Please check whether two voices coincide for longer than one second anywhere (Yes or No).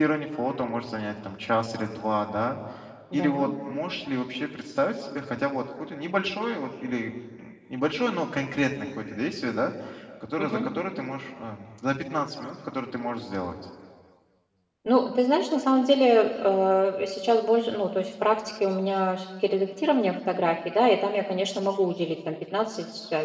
No